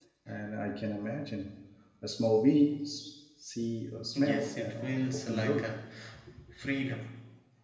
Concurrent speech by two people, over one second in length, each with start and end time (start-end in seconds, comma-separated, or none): 4.2-5.7